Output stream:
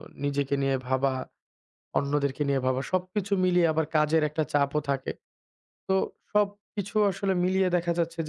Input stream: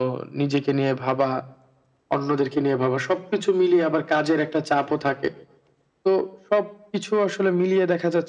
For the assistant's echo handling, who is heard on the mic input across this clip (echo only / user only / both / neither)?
echo only